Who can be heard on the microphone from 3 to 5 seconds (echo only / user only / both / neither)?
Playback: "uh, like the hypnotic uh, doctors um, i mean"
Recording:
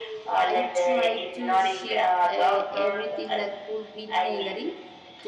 both